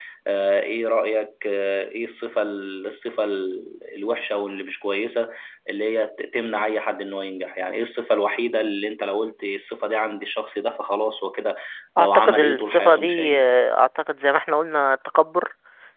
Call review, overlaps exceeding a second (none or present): present